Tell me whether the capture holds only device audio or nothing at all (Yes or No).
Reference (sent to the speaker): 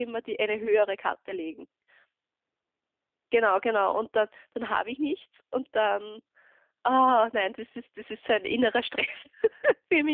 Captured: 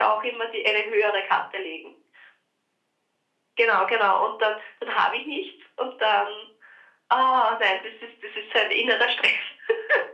Yes